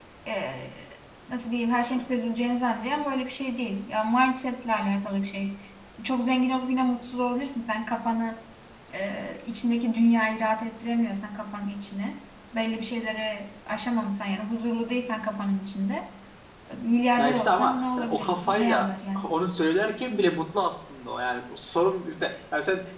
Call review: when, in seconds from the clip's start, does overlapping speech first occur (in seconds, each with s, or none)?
17.2 s